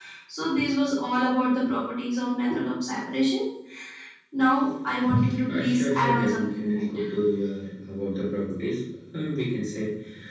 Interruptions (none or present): present